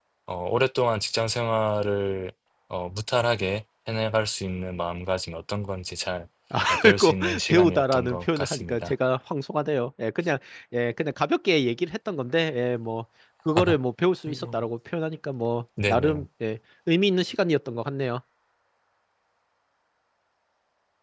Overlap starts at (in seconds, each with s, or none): 6.7 s